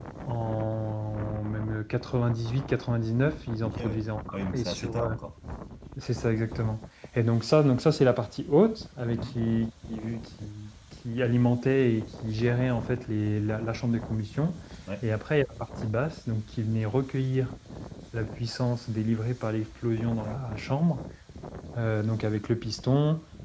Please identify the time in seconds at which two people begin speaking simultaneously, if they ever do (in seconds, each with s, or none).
3.6 s